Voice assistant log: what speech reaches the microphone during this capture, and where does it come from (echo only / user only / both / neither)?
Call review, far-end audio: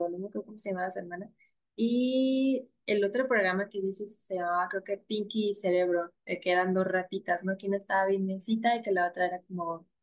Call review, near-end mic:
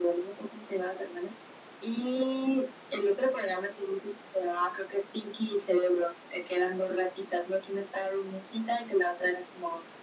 echo only